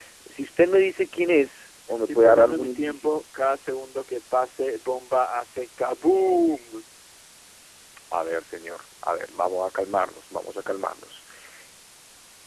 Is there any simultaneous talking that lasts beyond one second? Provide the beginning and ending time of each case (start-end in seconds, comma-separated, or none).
1.9-3.1